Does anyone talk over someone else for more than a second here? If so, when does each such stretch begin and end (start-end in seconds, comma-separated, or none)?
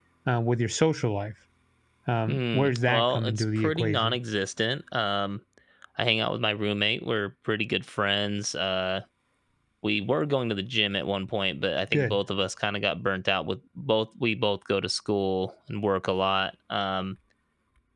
2.3-4.2